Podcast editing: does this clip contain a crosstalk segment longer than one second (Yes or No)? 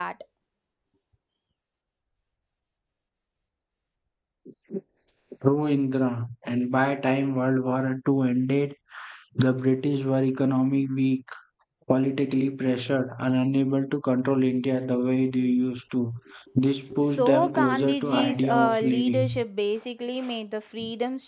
Yes